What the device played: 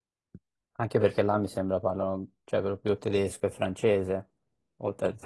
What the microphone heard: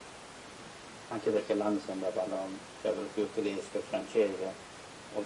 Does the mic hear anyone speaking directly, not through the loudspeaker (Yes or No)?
No